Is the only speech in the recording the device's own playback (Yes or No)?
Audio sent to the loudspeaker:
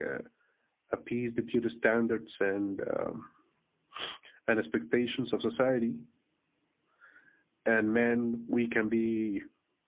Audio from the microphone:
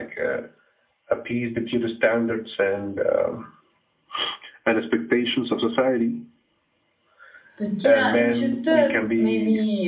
No